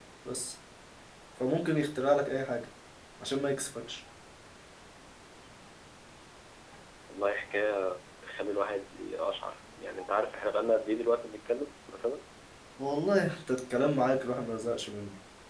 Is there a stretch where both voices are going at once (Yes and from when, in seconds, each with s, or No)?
No